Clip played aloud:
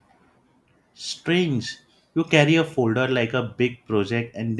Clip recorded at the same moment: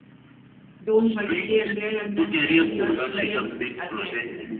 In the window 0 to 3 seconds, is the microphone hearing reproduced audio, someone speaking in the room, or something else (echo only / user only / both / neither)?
both